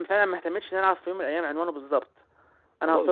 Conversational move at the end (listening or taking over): taking over